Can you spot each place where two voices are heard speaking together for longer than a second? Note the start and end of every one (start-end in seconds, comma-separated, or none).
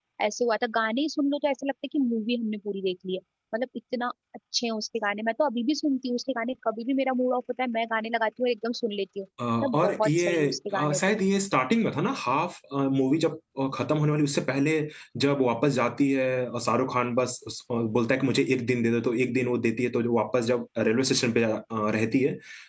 9.6-11.2